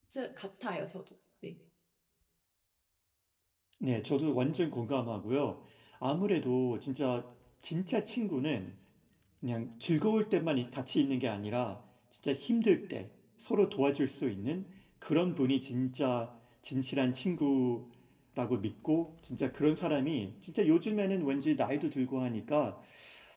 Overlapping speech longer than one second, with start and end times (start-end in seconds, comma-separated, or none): none